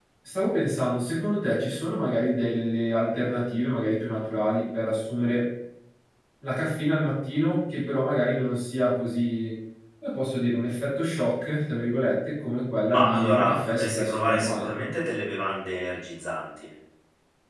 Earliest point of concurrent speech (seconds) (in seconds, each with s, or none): 12.9 s